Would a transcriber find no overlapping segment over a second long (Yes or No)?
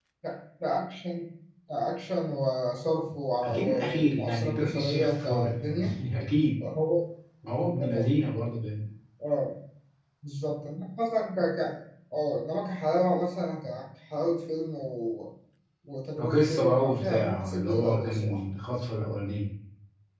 No